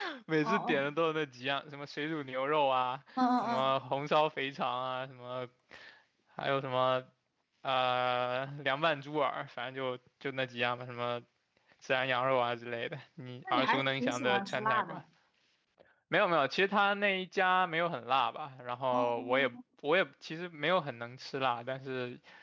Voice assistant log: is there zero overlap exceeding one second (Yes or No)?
No